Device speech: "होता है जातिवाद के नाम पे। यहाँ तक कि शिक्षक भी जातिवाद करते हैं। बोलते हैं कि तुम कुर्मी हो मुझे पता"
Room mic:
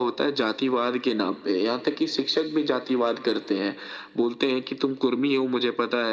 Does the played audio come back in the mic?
Yes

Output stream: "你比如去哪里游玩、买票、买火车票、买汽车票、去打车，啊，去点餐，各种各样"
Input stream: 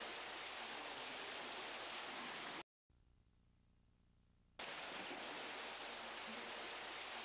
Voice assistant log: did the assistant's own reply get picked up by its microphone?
No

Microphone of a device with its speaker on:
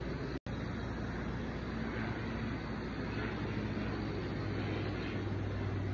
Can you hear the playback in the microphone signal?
No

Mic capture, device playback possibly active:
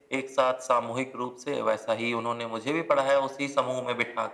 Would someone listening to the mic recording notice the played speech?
Yes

